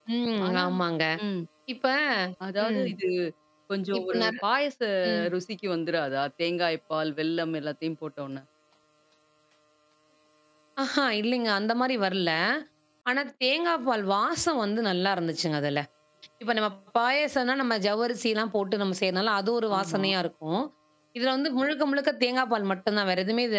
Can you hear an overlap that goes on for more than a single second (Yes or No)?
No